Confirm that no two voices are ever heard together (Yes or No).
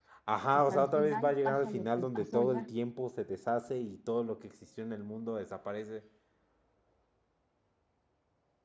No